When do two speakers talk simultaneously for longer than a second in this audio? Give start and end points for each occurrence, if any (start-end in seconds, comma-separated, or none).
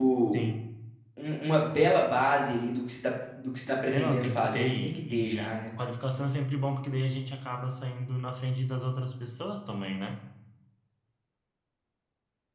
3.9-5.6